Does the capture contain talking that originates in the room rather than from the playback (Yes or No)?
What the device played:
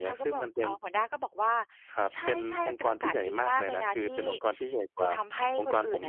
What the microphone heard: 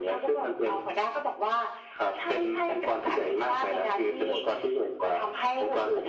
No